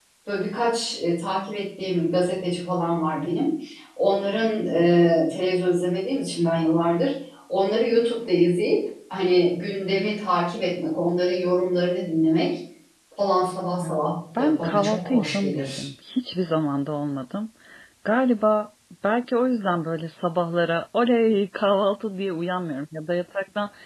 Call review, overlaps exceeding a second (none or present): present